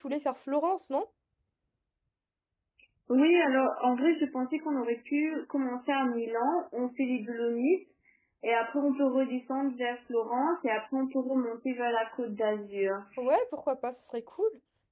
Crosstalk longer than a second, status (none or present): none